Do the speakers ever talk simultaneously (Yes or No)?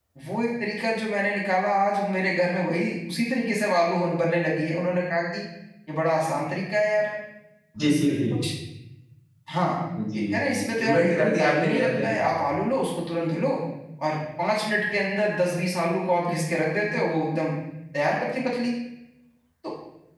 Yes